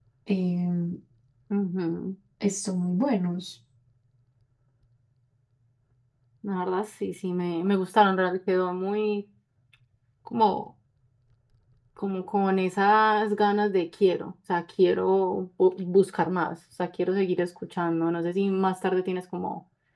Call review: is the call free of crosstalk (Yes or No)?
Yes